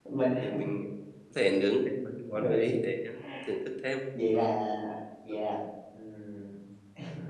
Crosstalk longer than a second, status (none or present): none